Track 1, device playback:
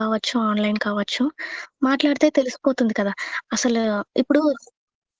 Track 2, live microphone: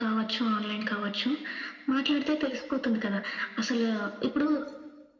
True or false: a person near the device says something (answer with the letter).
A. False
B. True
A